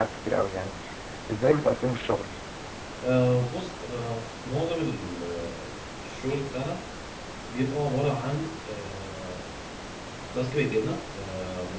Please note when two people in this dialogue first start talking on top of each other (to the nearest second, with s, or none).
none